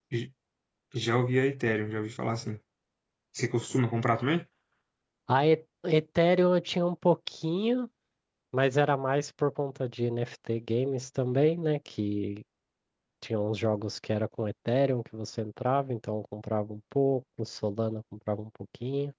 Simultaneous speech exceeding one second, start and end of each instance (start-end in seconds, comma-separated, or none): none